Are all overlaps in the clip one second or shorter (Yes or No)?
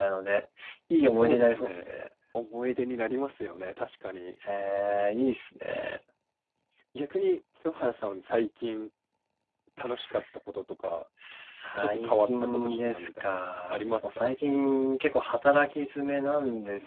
No